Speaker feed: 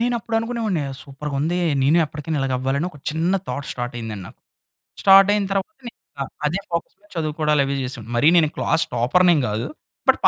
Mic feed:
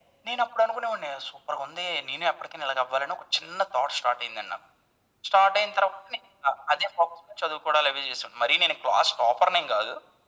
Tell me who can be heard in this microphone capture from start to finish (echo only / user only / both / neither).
echo only